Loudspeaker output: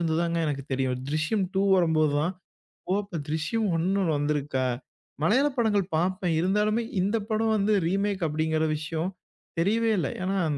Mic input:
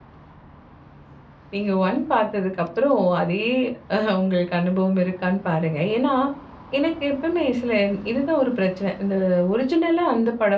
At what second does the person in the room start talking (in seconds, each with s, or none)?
1.5 s